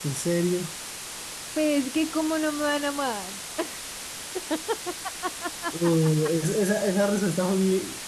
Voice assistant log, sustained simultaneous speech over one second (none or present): none